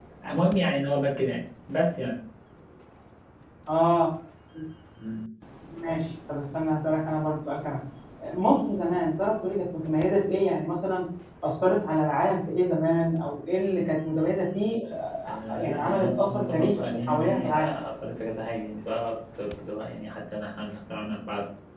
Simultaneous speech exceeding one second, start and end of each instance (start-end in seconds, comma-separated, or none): 15.3-17.7